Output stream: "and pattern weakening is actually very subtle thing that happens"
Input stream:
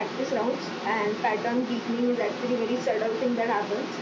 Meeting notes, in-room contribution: none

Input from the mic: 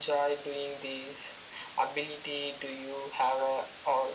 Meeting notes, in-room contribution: none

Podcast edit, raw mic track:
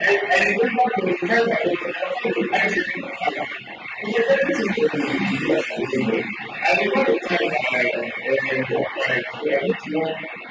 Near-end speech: none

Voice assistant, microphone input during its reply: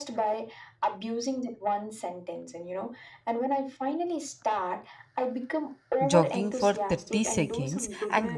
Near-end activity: present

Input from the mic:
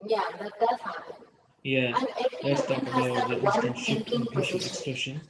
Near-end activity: present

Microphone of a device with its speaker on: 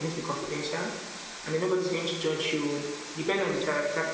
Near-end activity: none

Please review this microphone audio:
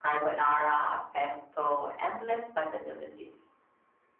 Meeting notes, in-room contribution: none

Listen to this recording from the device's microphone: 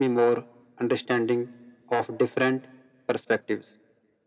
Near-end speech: none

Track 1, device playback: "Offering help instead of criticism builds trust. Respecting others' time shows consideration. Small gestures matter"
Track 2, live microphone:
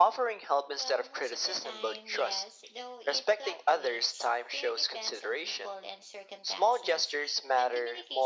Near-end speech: present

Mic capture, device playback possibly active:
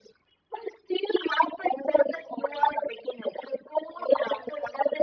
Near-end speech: none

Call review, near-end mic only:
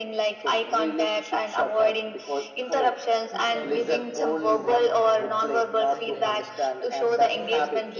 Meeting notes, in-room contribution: present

